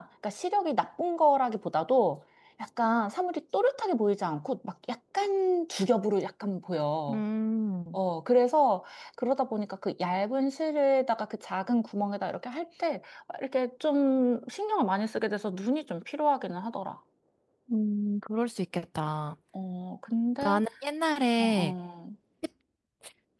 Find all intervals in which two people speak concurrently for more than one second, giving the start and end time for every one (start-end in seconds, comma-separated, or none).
none